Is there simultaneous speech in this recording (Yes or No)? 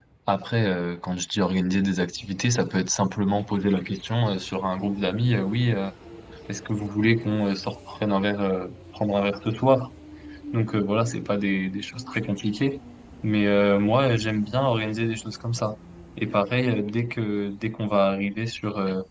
No